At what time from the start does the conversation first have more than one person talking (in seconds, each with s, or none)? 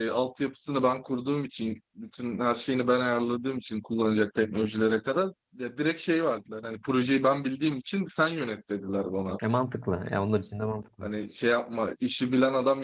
none